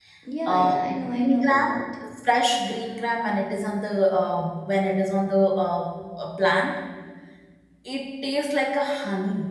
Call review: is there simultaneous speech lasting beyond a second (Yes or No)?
Yes